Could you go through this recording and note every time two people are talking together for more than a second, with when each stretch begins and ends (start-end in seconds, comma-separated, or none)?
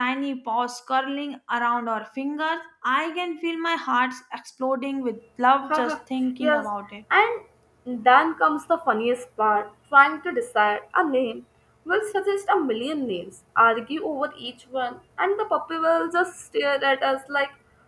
none